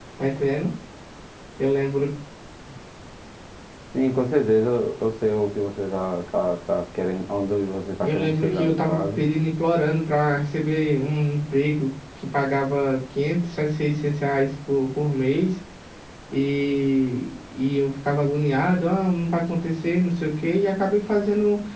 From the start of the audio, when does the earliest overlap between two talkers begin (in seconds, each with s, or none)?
8.0 s